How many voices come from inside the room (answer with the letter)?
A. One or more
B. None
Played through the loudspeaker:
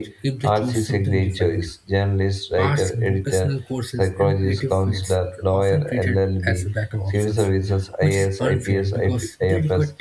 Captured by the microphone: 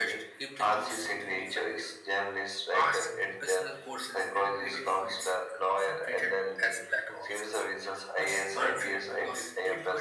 B